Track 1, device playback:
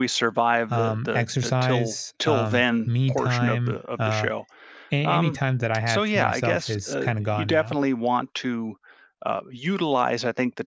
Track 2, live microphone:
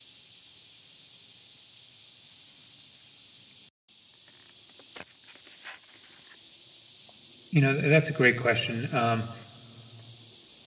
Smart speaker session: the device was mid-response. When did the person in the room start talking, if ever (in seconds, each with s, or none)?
7.5 s